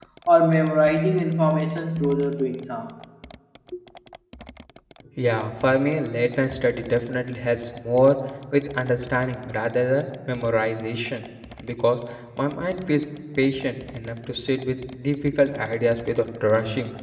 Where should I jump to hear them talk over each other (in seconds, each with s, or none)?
none